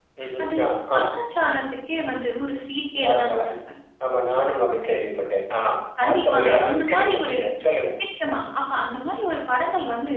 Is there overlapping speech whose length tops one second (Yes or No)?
Yes